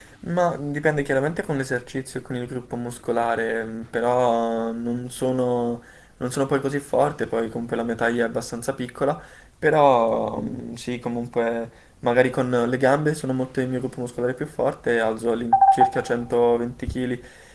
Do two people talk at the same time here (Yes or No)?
No